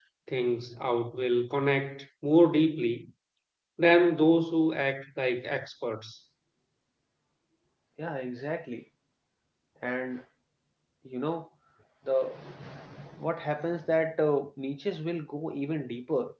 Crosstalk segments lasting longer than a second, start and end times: none

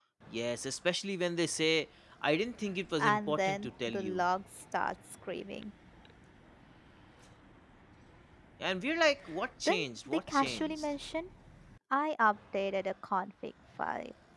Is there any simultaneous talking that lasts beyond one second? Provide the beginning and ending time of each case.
3.0-4.2, 9.7-10.9

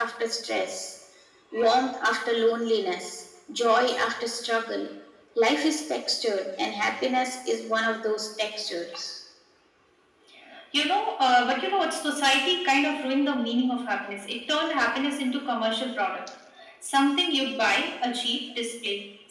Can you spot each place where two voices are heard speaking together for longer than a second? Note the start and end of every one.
none

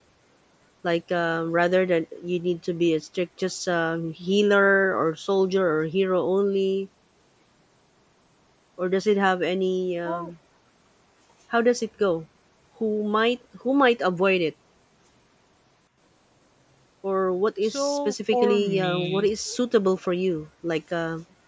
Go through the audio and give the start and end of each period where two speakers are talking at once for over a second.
17.6-19.3

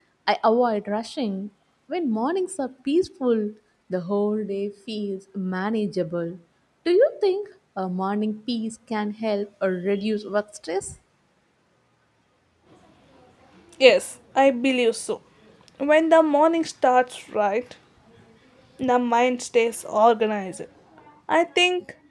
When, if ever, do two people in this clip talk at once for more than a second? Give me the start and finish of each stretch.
none

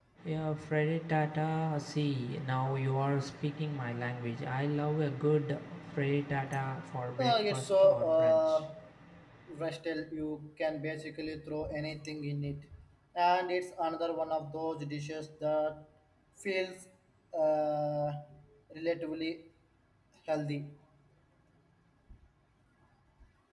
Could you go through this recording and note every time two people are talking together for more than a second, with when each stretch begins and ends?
7.2-8.6

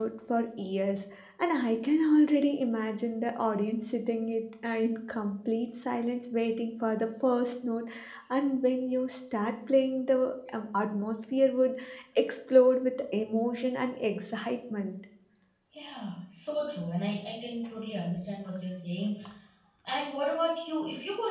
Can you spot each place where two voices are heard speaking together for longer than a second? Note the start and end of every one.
none

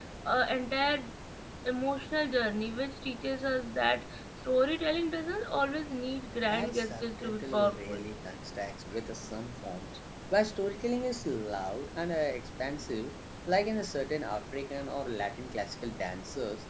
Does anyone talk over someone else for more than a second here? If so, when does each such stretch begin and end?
6.4-8.1

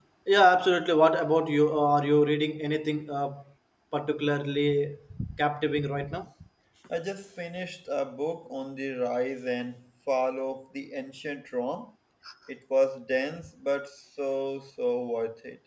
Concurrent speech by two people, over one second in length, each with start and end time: none

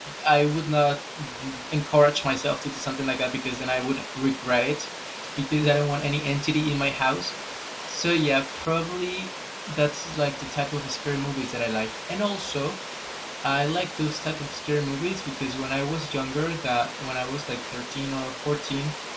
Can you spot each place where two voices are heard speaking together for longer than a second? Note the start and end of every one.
none

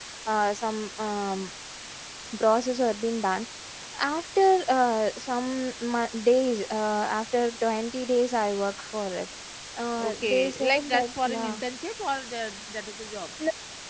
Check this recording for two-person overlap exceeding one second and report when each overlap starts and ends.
10.0-11.6

